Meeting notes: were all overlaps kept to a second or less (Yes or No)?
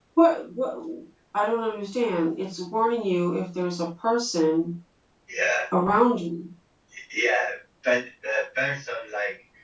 Yes